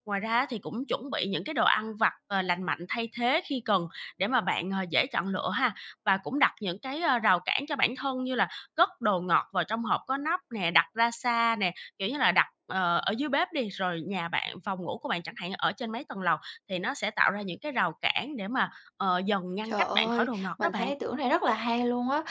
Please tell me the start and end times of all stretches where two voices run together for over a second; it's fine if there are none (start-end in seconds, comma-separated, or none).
19.7-20.9